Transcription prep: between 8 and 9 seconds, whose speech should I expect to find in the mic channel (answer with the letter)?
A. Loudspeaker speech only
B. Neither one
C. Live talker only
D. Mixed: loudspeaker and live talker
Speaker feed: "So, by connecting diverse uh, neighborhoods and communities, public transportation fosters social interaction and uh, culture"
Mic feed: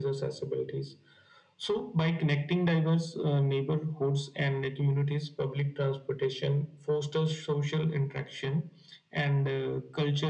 A